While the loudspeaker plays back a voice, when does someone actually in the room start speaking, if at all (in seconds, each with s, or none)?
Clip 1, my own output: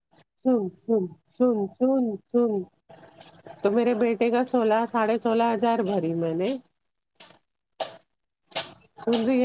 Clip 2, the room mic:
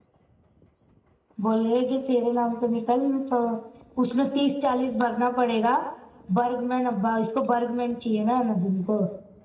1.4 s